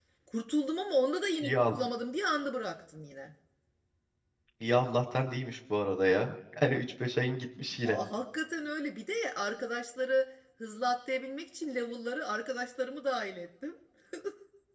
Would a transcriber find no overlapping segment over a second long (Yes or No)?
Yes